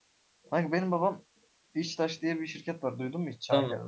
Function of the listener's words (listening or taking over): taking over